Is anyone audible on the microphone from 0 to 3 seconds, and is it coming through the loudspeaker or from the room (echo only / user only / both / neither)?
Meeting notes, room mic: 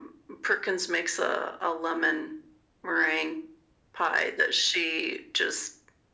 echo only